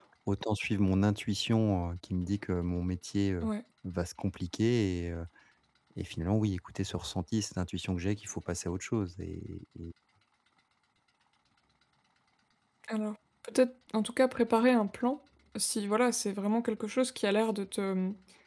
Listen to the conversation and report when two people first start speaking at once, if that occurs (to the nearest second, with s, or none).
none